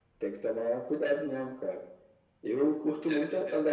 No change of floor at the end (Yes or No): Yes